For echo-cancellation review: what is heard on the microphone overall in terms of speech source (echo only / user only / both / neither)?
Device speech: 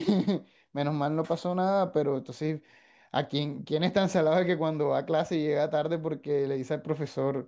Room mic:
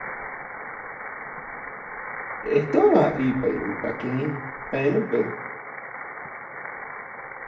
user only